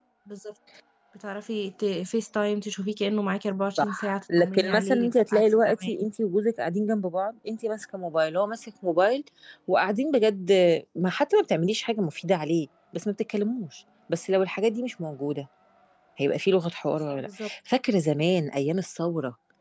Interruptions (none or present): present